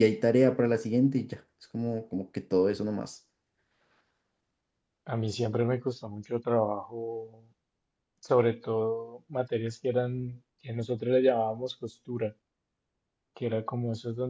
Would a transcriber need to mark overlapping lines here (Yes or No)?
No